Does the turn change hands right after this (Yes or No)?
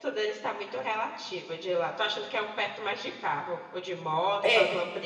Yes